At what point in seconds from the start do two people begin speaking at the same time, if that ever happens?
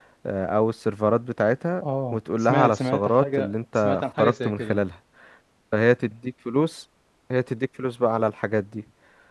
2 s

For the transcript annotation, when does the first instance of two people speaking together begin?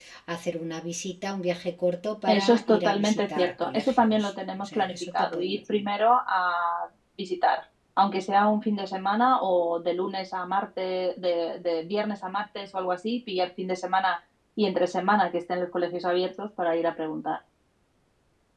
2 s

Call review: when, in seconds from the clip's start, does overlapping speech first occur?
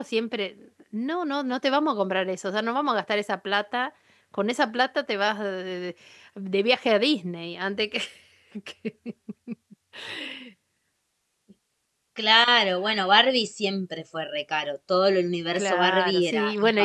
16 s

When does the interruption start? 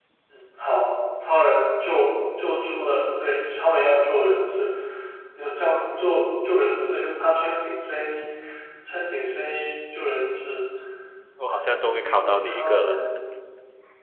11 s

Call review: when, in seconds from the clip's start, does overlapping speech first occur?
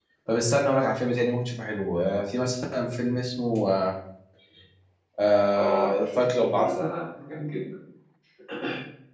6 s

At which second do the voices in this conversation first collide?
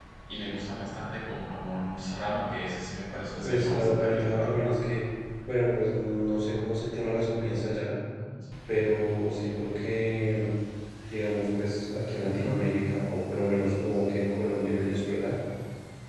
3 s

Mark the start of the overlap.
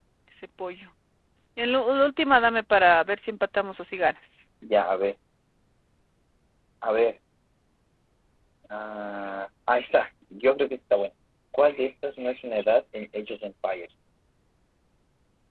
none

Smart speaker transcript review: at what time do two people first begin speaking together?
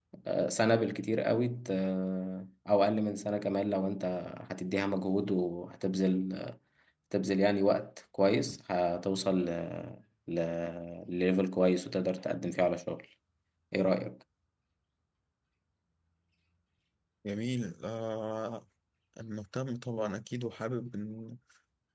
none

